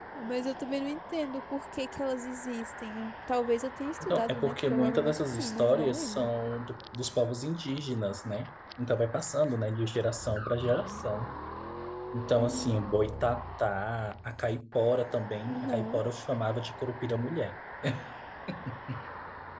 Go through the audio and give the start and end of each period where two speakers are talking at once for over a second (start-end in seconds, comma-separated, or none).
4.0-6.3